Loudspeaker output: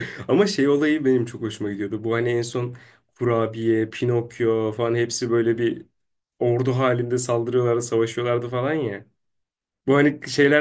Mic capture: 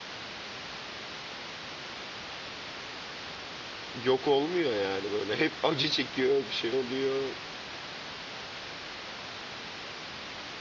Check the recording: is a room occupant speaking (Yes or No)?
Yes